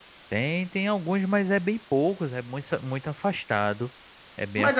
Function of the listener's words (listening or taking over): taking over